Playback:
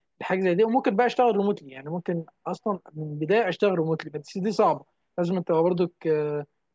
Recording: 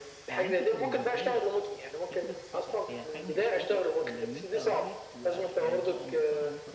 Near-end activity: present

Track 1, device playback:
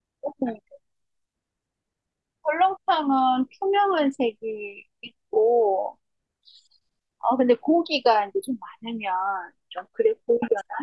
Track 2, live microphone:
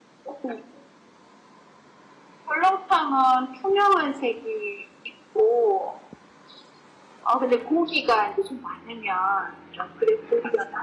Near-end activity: none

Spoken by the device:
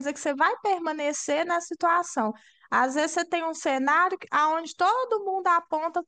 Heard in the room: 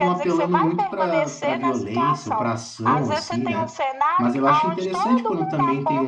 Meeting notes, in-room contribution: present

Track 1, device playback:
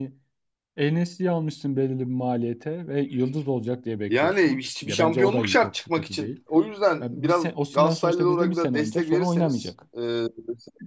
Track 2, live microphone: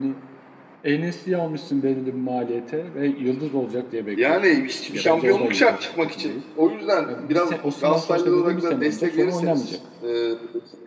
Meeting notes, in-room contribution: none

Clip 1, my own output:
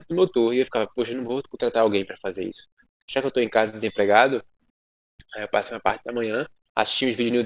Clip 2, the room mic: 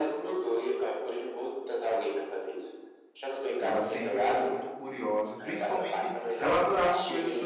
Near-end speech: present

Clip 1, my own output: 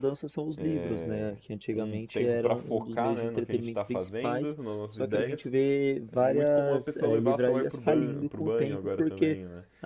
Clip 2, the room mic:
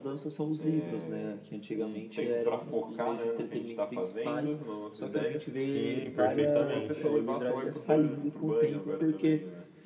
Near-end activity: present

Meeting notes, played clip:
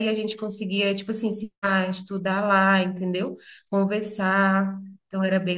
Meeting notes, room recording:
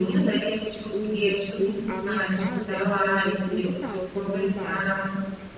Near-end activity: present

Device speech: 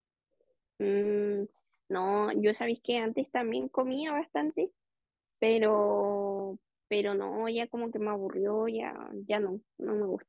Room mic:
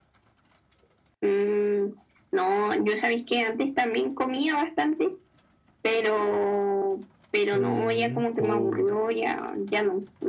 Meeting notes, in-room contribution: present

